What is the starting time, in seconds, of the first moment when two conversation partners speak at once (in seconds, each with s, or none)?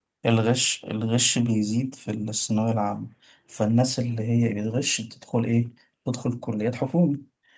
none